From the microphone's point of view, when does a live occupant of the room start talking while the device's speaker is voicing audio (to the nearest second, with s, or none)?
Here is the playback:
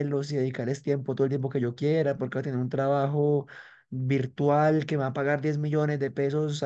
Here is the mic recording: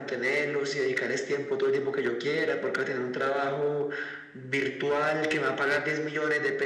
none